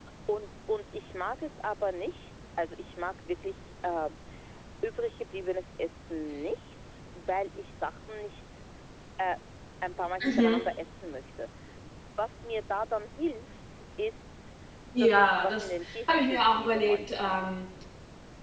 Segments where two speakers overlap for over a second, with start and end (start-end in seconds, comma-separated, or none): 15.0-17.6